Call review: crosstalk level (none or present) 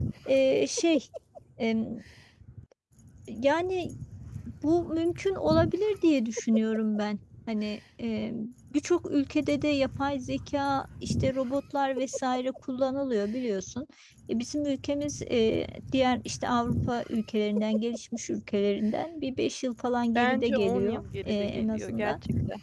present